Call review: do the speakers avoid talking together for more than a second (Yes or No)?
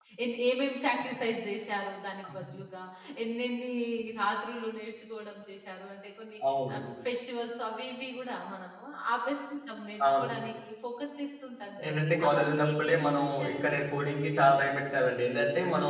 No